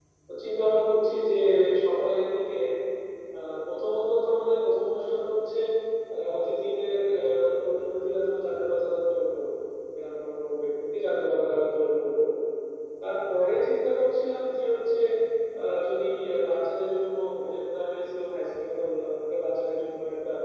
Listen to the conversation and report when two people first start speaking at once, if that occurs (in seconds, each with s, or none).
none